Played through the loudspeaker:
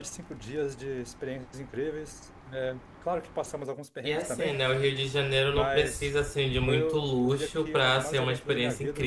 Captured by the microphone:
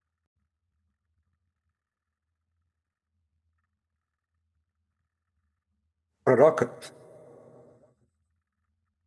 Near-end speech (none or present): present